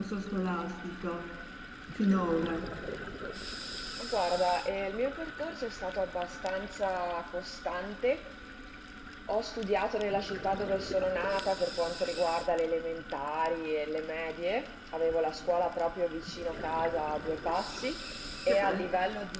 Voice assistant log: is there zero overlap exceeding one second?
Yes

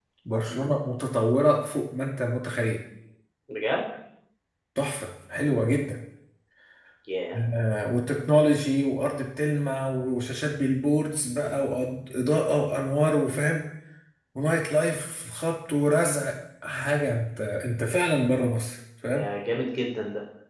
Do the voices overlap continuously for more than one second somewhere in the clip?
No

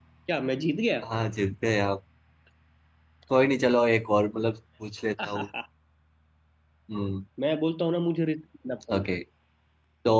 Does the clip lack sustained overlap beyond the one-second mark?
Yes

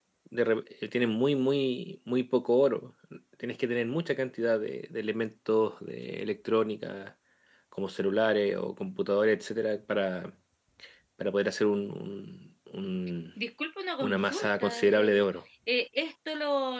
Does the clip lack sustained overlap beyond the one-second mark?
No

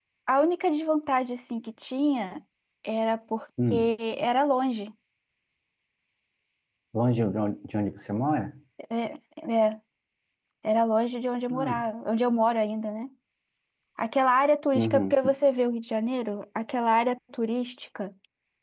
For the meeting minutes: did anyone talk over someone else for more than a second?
No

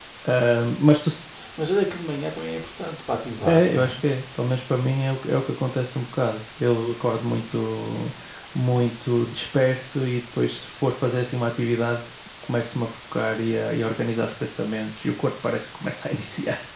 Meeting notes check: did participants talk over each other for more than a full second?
No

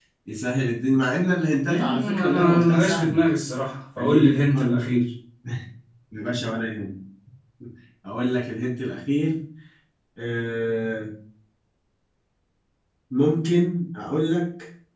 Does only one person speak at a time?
No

